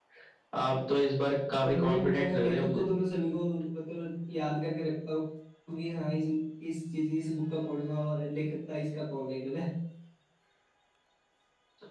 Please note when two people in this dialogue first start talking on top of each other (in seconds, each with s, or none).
1.6 s